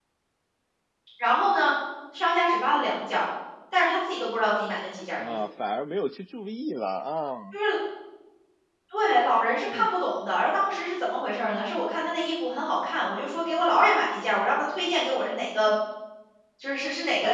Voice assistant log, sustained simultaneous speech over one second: none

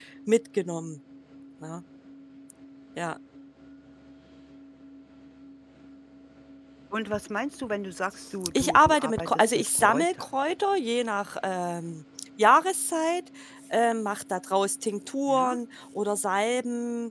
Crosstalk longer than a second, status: present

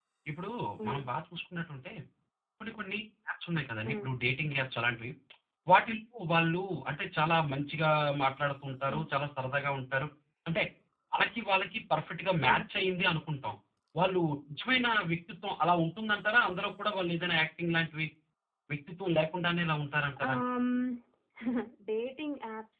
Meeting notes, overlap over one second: none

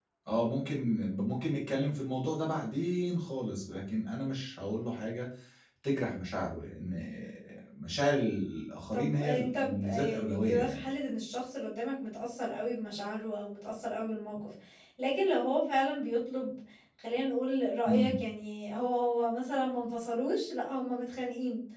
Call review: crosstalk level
present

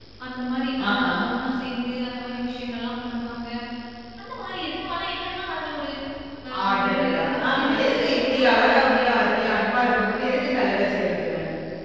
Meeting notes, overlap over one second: present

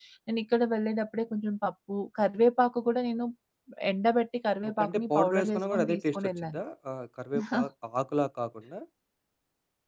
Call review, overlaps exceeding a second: present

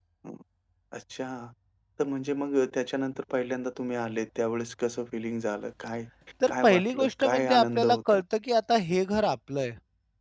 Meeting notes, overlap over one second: present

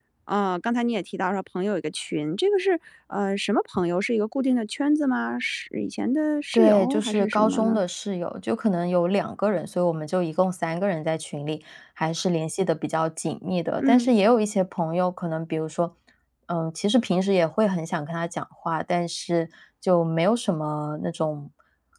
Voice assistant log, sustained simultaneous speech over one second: present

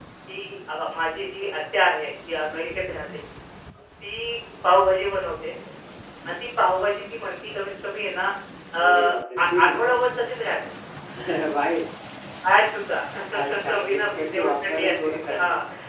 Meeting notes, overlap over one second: present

